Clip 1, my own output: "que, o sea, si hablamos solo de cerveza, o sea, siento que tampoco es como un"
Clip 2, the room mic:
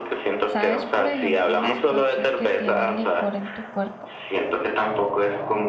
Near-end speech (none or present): present